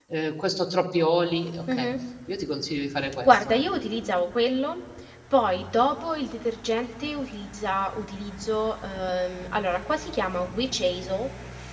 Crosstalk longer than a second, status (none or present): none